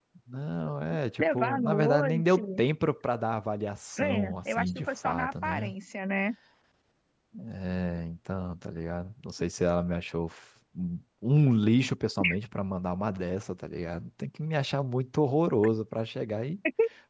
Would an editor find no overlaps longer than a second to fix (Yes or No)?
No